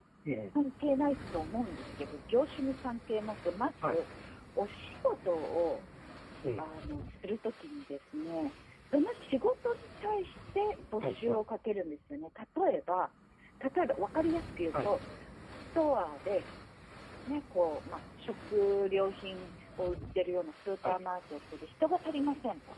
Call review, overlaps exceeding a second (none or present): none